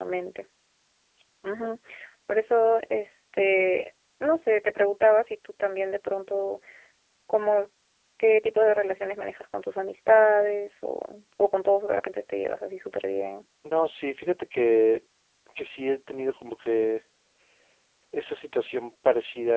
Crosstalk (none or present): none